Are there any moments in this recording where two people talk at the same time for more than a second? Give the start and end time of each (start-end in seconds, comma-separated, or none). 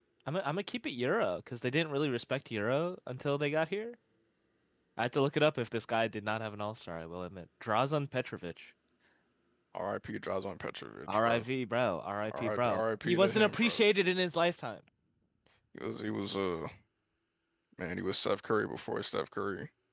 12.2-13.8